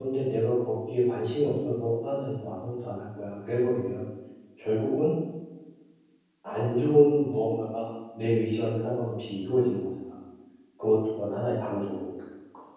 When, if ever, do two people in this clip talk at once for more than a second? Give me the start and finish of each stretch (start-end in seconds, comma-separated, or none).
none